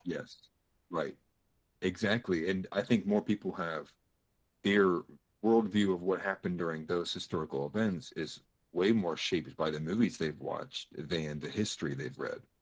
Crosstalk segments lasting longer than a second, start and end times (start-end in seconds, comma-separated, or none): none